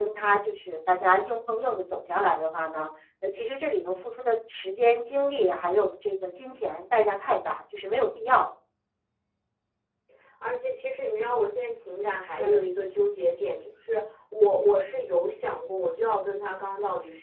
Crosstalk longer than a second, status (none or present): none